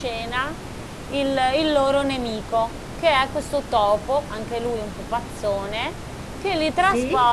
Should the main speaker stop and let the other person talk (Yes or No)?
No